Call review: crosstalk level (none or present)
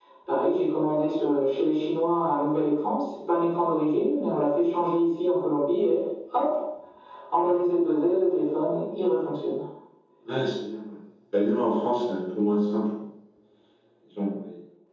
none